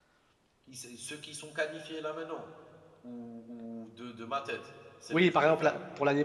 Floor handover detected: Yes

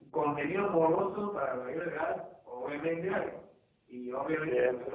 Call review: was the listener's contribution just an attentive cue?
Yes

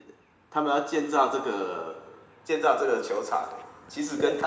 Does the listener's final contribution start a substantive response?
No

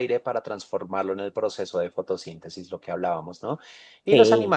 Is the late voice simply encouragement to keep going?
Yes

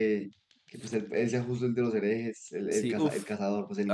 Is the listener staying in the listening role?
No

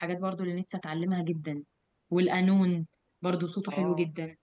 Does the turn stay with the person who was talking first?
No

